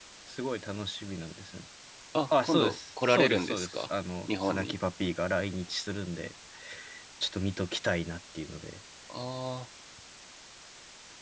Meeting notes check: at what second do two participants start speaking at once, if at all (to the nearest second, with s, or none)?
2 s